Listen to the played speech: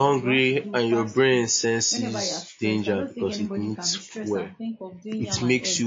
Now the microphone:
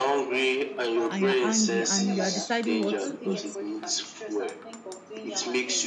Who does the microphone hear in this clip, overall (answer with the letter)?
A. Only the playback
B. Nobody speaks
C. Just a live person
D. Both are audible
D